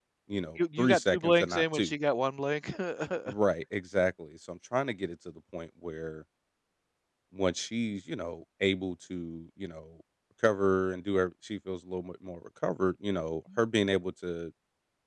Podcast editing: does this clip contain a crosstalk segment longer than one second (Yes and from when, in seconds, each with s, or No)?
Yes, from 0.6 s